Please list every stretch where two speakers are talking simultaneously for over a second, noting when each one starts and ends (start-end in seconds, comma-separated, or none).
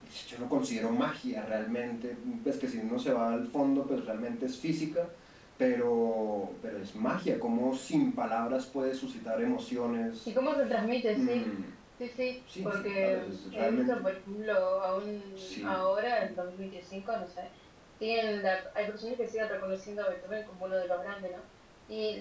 12.7-14.0